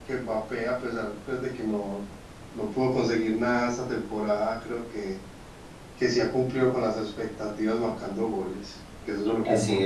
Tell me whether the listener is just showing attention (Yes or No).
No